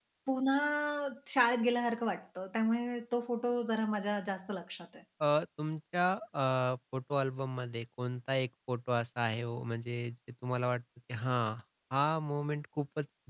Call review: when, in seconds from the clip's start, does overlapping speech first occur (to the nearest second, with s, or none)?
none